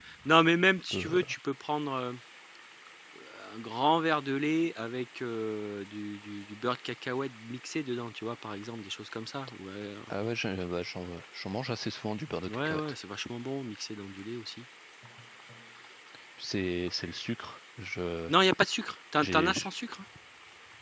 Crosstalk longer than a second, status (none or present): none